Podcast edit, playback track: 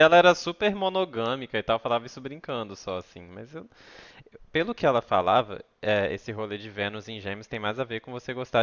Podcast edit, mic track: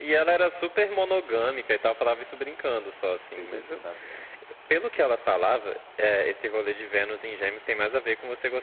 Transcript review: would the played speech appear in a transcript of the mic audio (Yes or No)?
Yes